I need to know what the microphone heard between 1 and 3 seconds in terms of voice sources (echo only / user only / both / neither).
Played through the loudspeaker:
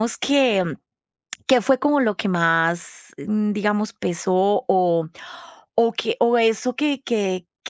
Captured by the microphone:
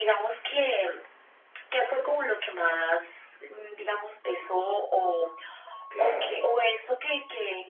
echo only